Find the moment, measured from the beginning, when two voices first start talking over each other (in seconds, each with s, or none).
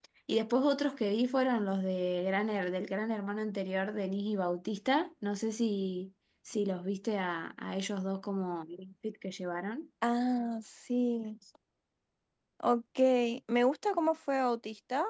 none